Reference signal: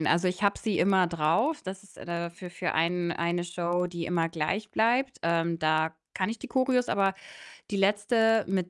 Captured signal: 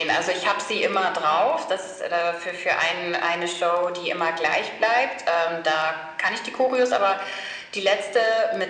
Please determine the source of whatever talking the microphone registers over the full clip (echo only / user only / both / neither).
echo only